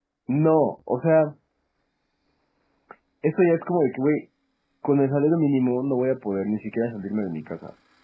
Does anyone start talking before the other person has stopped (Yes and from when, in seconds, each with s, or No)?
No